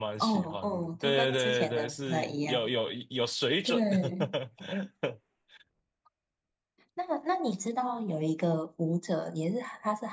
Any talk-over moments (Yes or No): Yes